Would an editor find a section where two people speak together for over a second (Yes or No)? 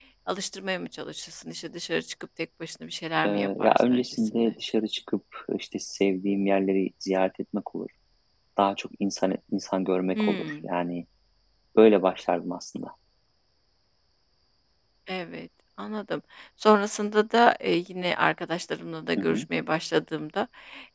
Yes